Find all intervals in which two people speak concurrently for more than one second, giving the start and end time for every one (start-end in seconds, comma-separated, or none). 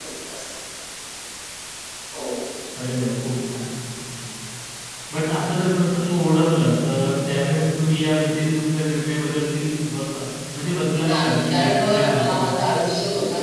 10.9-12.4